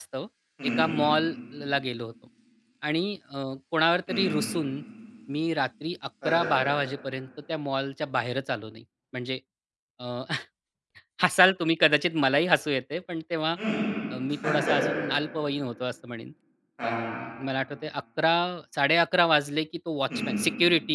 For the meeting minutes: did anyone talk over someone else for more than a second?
No

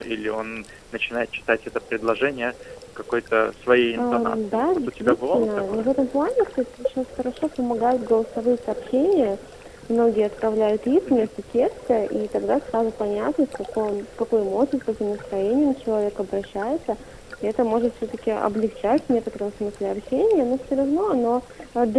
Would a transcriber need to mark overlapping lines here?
Yes, from 4.0 s

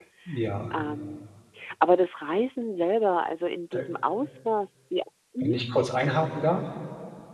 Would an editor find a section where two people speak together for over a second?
No

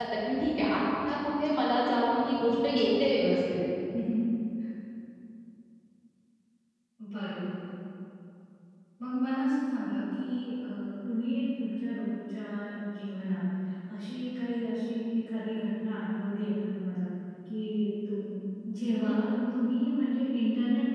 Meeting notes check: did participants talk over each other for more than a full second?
No

